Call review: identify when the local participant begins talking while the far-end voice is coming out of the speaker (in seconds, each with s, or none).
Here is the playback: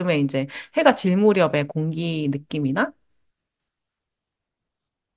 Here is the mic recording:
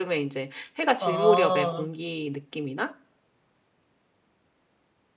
1.0 s